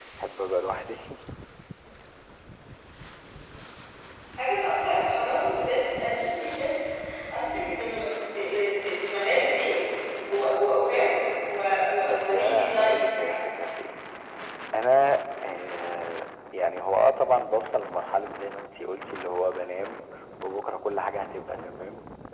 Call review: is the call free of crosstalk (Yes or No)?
No